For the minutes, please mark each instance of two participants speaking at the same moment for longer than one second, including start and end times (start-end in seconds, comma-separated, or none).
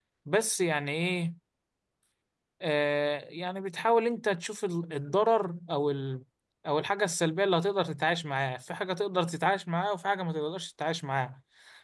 none